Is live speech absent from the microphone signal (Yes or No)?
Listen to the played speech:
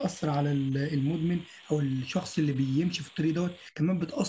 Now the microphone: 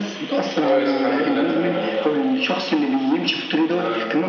No